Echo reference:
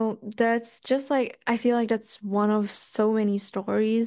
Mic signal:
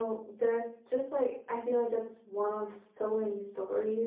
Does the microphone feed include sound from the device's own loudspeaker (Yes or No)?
Yes